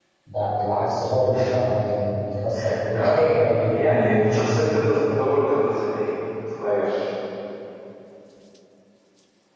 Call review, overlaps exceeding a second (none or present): none